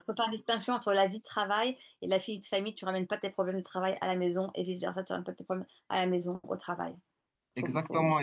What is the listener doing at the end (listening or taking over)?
taking over